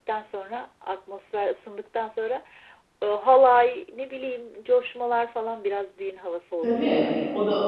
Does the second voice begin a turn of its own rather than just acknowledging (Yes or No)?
Yes